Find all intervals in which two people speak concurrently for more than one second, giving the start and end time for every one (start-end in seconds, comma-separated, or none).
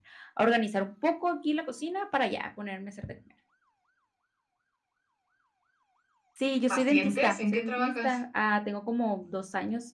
6.7-8.2